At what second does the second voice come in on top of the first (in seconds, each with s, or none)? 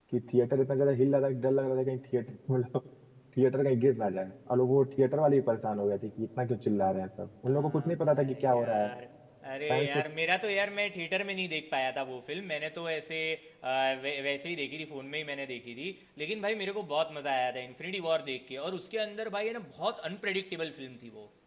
7.5 s